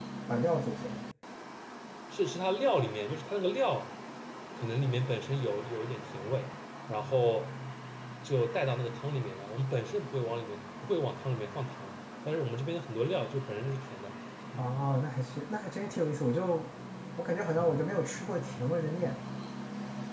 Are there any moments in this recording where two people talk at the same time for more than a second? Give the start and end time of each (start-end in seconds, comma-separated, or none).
none